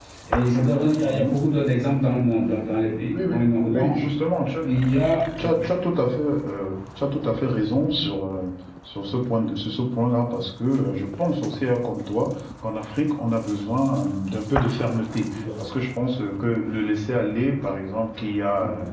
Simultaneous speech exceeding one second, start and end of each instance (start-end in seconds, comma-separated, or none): none